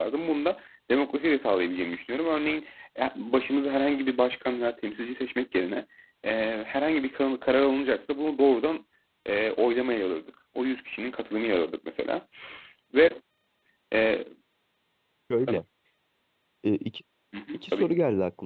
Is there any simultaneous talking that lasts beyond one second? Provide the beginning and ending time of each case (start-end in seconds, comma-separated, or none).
none